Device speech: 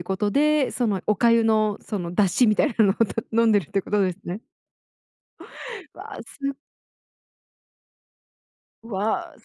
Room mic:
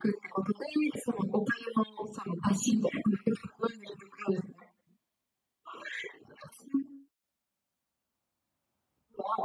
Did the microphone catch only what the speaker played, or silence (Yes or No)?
Yes